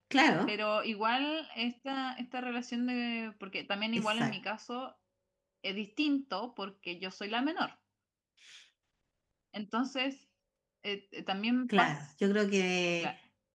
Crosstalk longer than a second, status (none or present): none